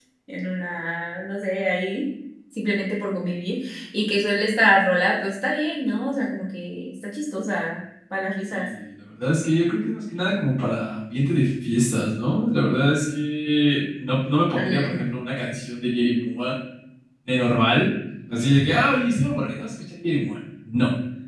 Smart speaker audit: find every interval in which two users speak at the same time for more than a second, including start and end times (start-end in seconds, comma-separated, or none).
none